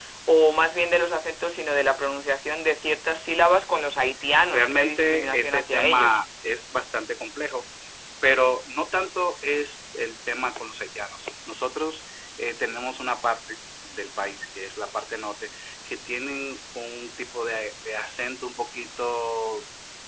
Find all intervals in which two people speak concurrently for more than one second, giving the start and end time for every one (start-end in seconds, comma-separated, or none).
4.5-6.2